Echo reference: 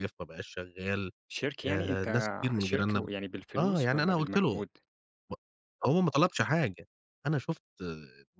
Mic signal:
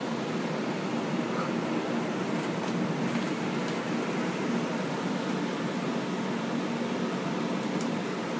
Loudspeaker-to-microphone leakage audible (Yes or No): No